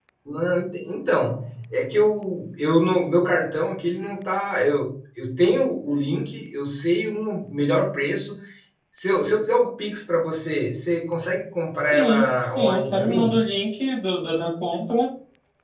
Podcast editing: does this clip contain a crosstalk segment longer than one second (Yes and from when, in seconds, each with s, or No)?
Yes, from 11.8 s